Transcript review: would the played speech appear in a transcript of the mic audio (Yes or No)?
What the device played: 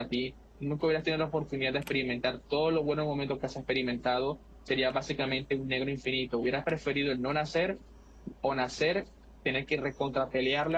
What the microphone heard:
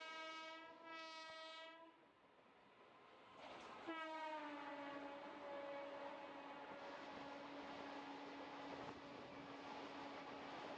No